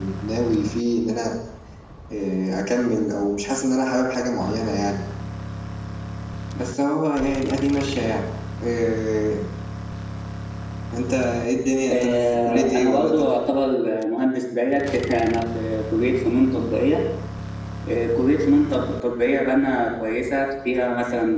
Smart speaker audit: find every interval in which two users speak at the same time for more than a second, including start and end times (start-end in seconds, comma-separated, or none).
11.9-13.2